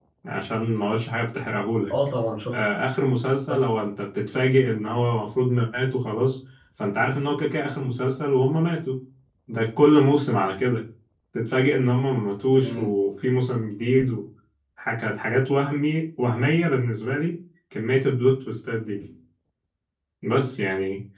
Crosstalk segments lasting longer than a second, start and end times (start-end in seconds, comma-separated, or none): none